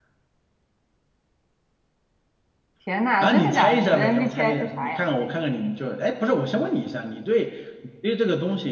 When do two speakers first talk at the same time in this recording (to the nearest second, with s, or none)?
3 s